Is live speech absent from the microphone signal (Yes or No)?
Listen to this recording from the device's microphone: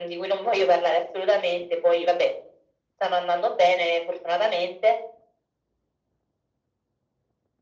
Yes